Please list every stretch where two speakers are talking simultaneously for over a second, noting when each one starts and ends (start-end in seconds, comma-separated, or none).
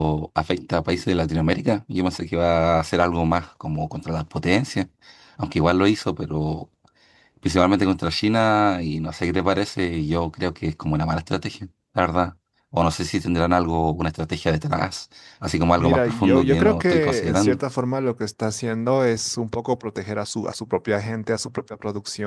15.8-17.6